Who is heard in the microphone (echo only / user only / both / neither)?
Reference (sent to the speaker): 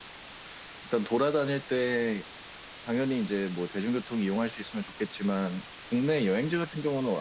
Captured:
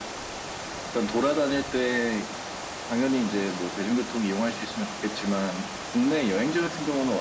echo only